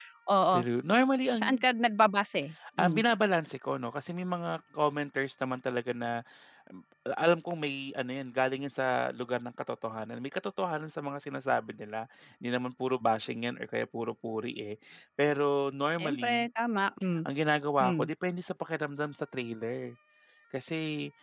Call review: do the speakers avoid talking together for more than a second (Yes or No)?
Yes